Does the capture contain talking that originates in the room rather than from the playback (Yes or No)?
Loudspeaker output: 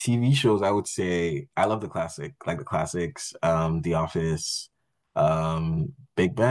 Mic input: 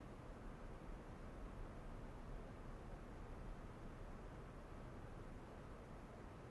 No